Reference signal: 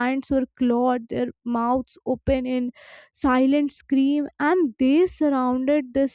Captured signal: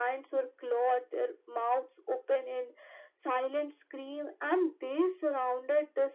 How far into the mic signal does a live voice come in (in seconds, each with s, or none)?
none